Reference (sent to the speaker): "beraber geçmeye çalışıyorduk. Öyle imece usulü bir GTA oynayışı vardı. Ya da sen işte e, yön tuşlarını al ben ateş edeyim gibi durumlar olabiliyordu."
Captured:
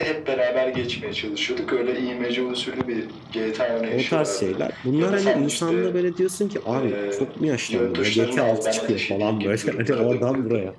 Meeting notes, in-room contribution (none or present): present